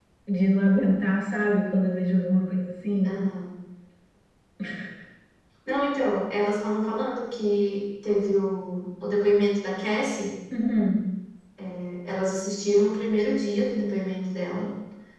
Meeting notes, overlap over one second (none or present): none